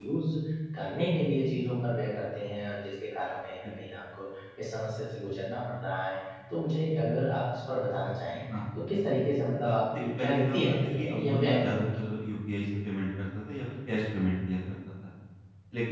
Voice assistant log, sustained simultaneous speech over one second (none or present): present